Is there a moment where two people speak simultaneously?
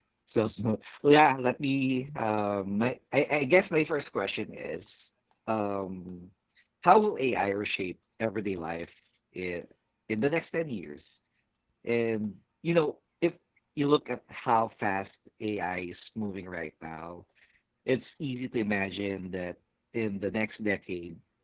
No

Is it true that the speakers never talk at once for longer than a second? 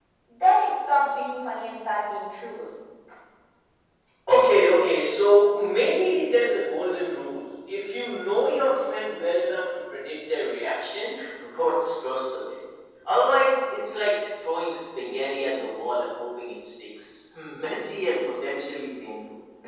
Yes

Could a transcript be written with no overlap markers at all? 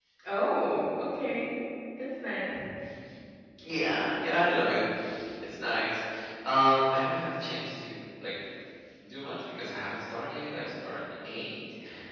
Yes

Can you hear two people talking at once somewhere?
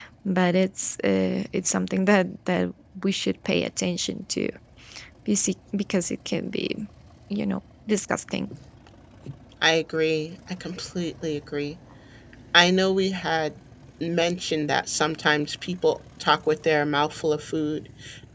No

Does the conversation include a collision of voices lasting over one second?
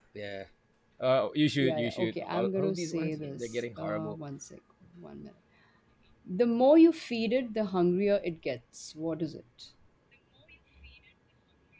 Yes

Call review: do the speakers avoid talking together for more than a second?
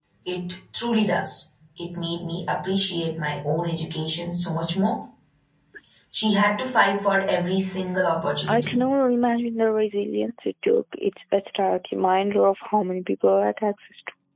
Yes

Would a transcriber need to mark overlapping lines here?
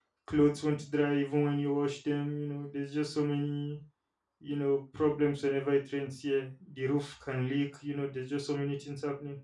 No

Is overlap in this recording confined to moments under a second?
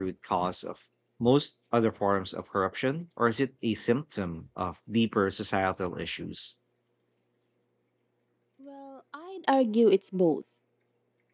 Yes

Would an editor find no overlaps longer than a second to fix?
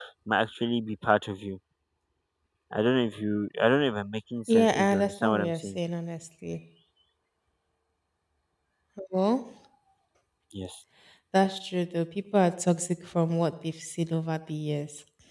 No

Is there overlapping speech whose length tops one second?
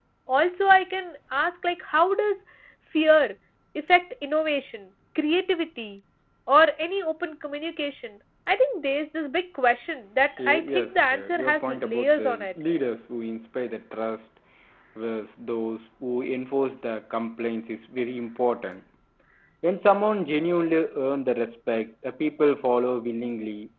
Yes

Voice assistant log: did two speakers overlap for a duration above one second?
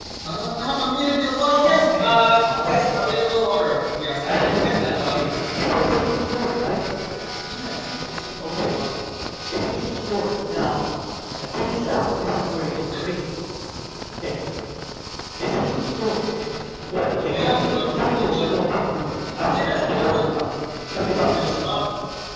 Yes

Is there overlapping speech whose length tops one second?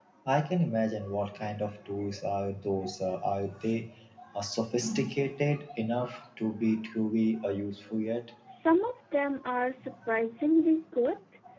No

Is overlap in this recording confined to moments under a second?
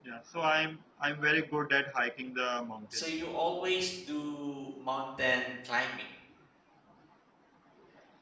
Yes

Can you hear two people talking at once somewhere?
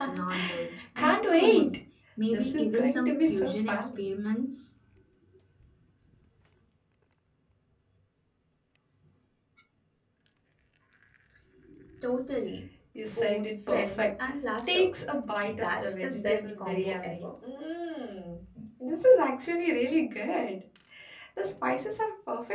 Yes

